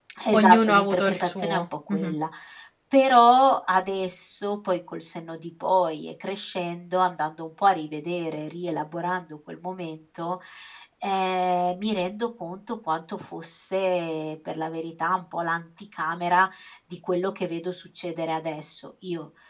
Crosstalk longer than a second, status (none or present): present